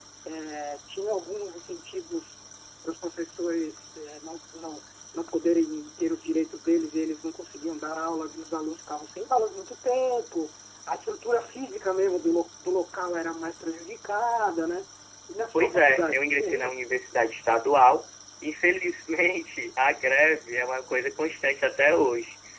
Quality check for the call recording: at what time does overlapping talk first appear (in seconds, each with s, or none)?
15.5 s